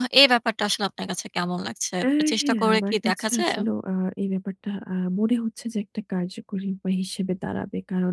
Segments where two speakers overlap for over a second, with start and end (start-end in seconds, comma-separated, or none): 2.3-3.6